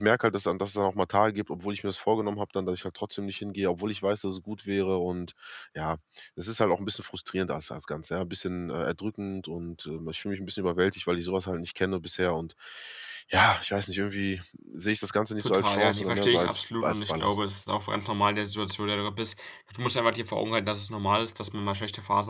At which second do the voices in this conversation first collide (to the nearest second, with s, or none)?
15 s